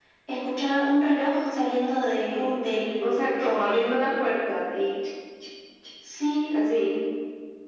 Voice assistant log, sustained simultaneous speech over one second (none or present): present